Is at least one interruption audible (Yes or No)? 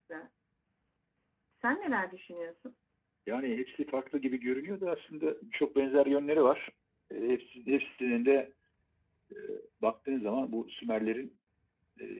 No